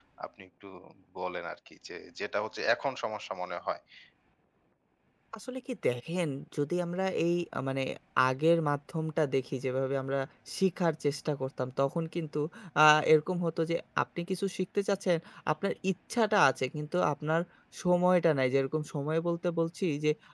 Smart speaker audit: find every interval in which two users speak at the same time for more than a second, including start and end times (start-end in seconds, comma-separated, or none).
none